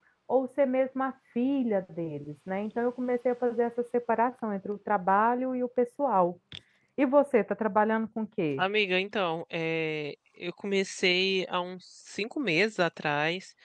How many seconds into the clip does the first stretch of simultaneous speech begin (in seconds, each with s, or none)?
none